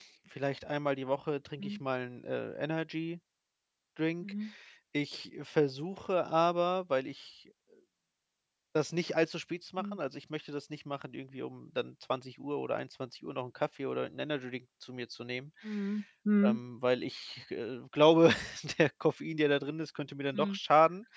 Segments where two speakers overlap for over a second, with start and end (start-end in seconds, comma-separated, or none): none